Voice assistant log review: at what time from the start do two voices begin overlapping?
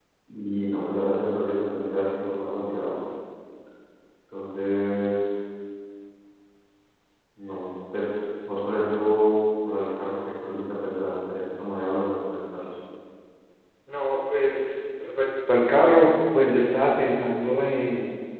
none

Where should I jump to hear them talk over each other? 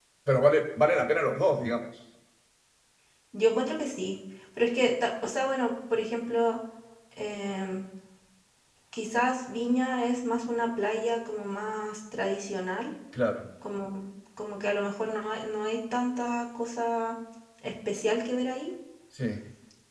none

